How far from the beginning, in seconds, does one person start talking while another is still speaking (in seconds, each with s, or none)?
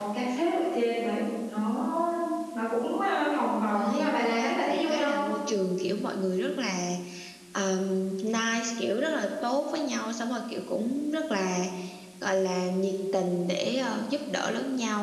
3.7 s